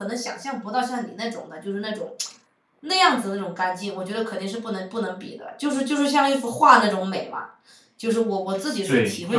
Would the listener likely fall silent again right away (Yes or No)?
No